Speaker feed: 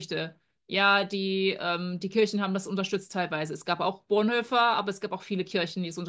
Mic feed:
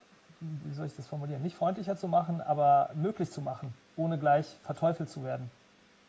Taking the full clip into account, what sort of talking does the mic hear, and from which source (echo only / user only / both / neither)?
user only